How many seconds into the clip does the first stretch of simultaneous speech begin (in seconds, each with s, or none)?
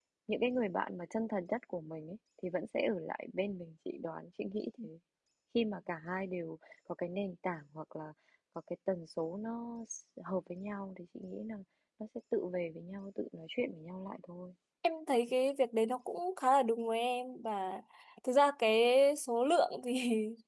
none